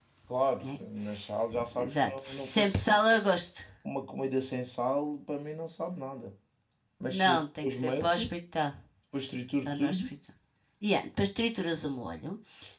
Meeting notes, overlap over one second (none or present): present